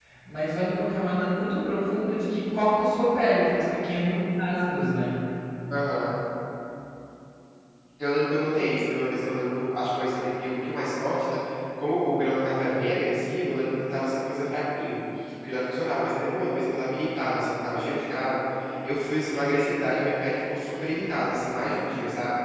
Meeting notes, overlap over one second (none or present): none